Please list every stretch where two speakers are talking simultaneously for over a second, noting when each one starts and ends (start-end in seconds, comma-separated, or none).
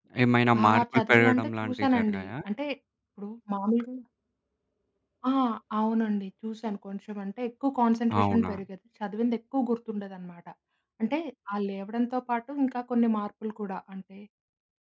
0.6-2.3